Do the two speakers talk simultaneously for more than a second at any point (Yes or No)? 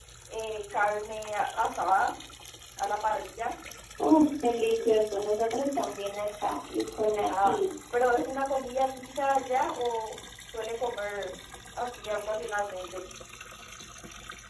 No